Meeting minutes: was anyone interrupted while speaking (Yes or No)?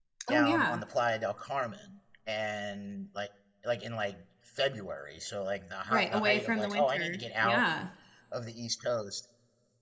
Yes